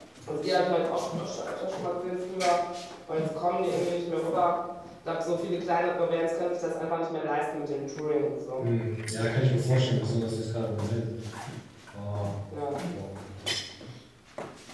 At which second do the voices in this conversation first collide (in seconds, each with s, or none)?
none